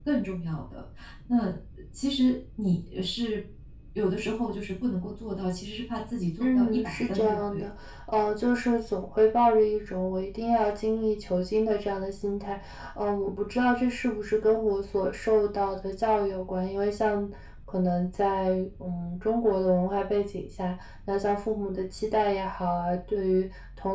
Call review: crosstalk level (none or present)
present